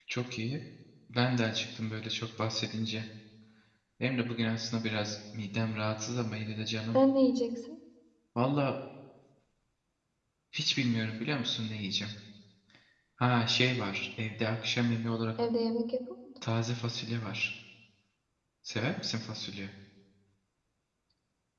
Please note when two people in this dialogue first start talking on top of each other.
none

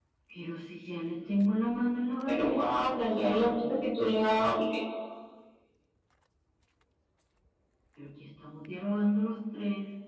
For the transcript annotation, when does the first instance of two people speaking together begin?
2 s

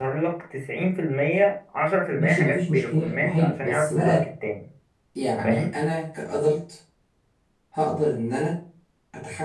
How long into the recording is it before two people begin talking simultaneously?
2 s

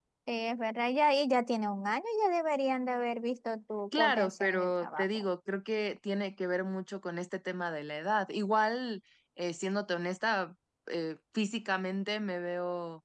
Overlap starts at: 4 s

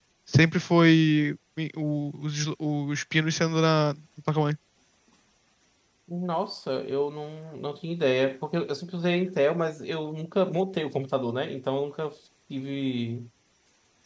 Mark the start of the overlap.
none

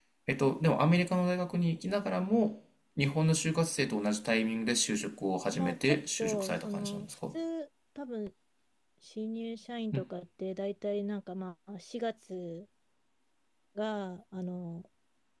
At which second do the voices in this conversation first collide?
5 s

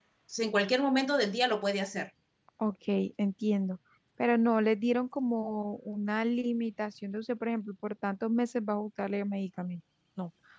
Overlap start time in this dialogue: none

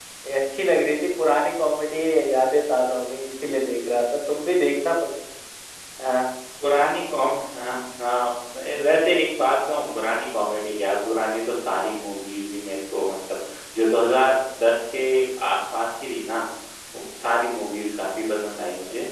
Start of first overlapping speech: none

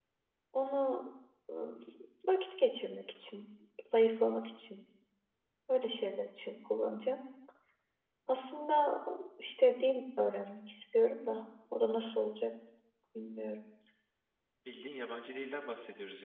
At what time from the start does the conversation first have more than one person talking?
none

